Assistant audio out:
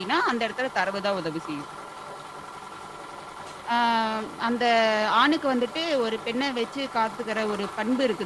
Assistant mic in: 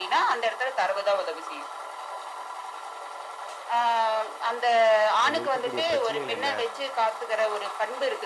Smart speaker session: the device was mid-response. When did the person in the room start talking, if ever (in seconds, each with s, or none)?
5.2 s